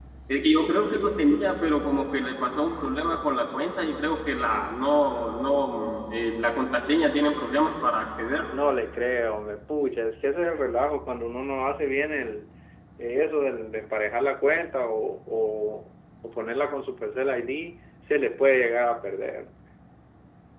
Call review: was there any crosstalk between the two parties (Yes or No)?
No